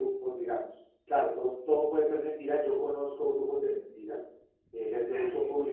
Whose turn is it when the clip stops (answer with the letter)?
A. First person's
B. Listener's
A